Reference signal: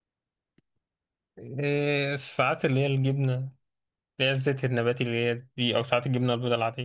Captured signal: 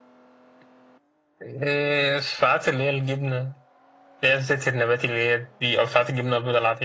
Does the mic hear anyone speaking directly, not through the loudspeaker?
No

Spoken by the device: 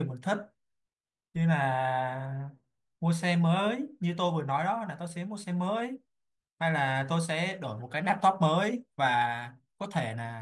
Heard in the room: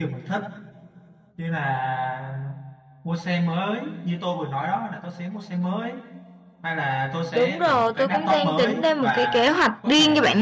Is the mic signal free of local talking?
No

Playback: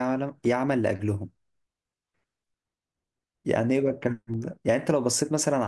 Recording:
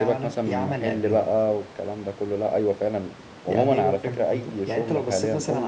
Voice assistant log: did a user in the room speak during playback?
Yes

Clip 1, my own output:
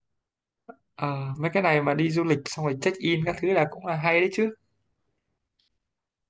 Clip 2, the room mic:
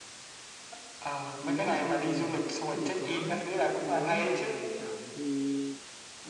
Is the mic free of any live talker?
No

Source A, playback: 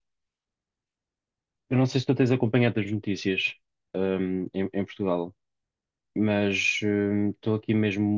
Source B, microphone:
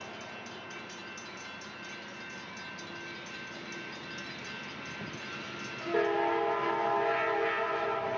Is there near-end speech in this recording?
No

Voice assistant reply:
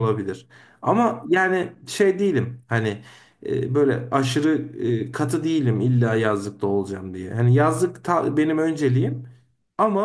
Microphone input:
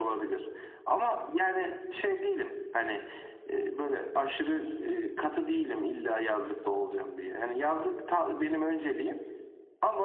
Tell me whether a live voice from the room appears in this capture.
No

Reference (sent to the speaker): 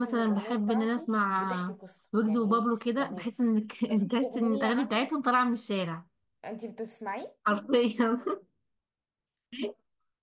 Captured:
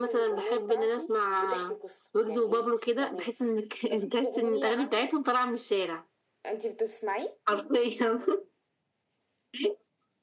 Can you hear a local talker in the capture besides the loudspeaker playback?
No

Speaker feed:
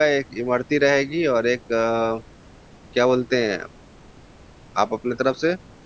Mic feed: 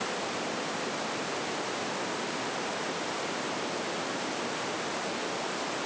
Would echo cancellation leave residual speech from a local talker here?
No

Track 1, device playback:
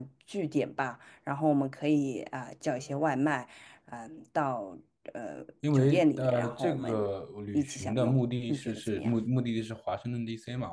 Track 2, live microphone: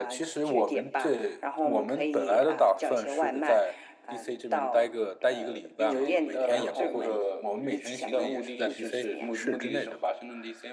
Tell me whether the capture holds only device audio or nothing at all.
No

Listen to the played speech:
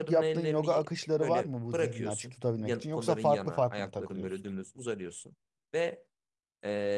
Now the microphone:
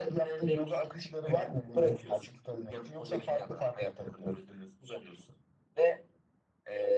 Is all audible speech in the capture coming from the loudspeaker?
Yes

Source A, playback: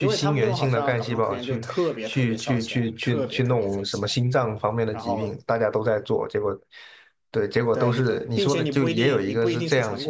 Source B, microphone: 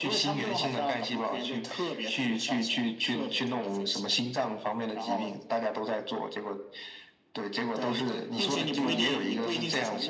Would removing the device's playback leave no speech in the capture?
No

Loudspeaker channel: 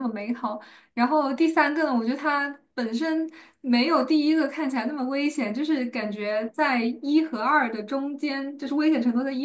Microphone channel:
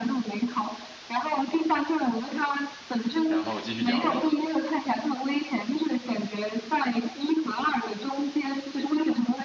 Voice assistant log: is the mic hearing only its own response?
No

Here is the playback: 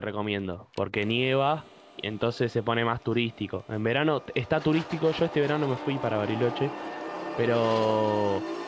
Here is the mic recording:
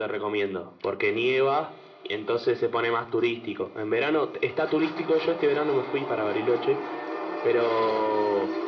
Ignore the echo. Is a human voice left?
No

